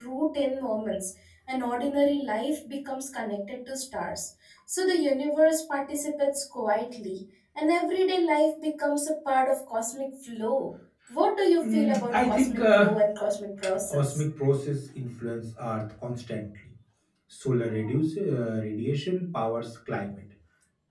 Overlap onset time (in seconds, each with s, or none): 11.6 s